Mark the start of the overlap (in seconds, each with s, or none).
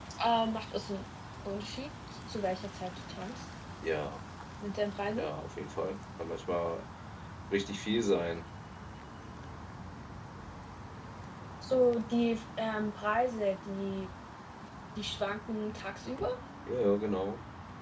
none